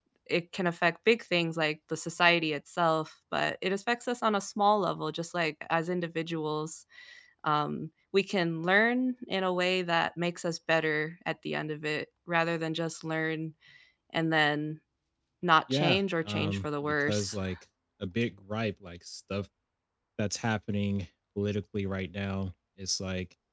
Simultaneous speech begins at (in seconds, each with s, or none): 15.7 s